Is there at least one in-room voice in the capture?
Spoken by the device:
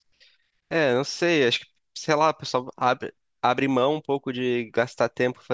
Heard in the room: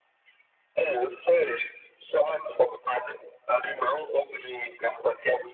No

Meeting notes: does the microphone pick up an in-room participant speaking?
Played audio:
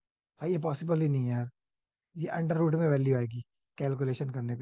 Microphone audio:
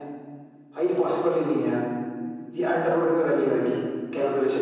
No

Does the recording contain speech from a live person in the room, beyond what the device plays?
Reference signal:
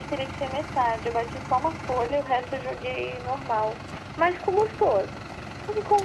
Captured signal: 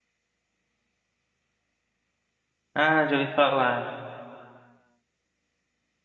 Yes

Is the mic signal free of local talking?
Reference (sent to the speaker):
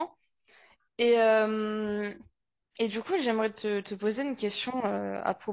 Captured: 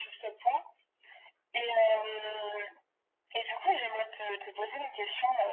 Yes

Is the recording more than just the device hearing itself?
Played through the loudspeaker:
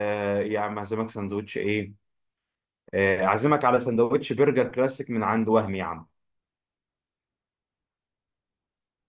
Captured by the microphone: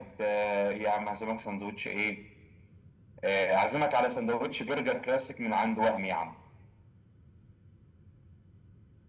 No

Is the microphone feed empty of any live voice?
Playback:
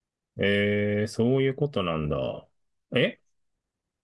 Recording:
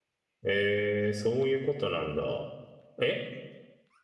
Yes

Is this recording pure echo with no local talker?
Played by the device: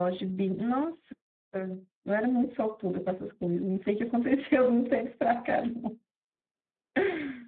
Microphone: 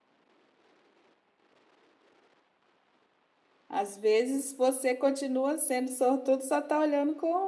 No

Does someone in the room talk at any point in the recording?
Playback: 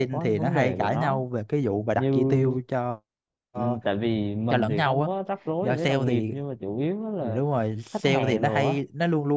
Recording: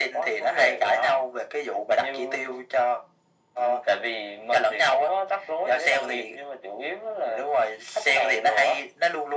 No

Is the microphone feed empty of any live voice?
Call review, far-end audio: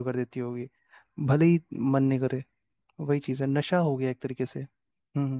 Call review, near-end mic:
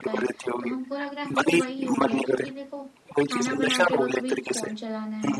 No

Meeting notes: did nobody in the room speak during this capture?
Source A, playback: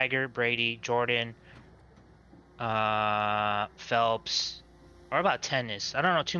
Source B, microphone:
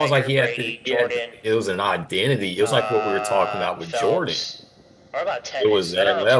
No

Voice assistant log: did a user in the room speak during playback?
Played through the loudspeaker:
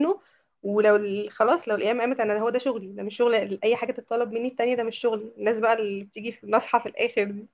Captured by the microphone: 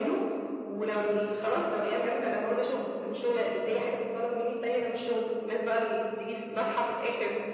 No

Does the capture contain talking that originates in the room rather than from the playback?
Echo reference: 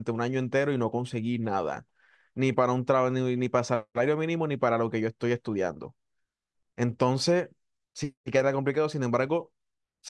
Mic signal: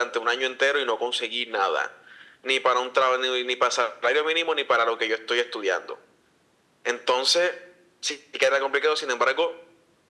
No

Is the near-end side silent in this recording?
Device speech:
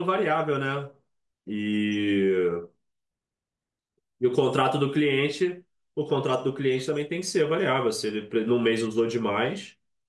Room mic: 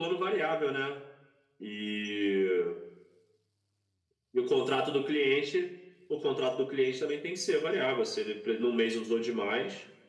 Yes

